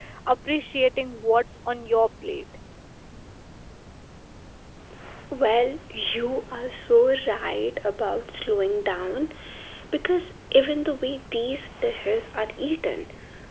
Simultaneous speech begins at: none

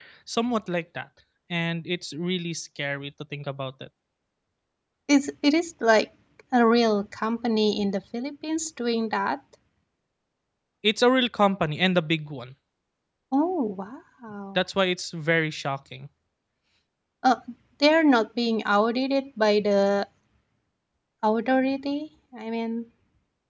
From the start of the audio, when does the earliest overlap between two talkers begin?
none

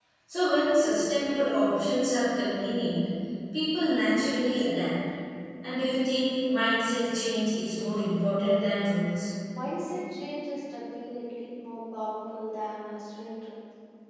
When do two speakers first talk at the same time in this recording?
none

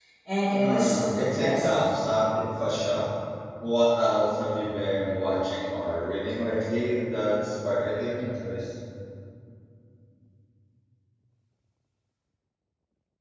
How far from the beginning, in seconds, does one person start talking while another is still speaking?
0.5 s

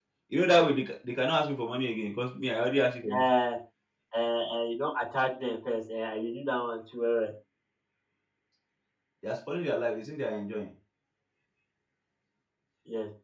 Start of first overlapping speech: none

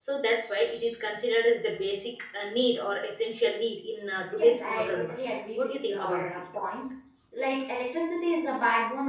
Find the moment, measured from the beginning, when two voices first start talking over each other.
4.4 s

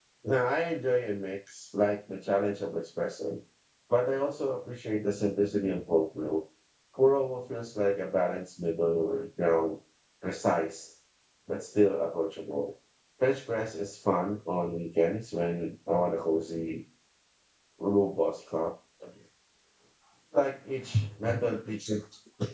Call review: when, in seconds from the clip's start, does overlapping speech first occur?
none

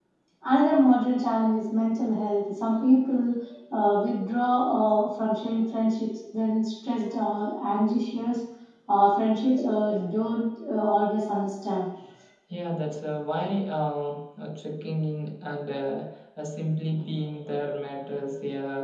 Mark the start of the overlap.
none

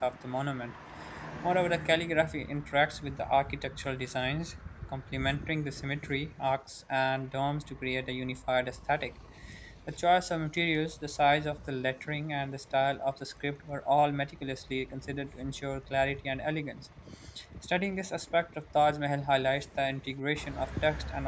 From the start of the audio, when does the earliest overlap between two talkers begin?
none

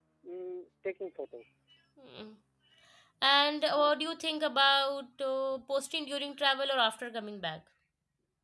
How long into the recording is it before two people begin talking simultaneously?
none

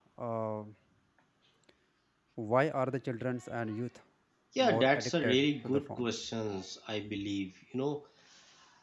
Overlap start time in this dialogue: 4.6 s

